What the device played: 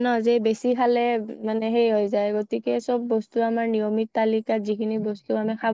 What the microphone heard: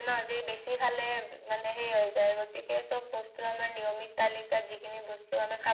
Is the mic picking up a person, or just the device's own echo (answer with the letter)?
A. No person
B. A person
A